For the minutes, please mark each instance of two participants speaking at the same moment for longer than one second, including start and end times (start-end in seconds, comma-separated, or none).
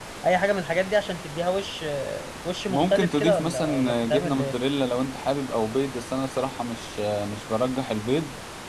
2.7-4.5